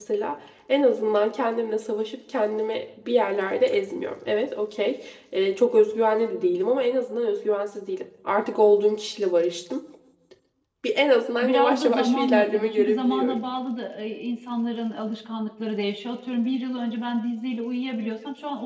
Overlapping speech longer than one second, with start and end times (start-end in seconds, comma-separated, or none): 11.4-13.4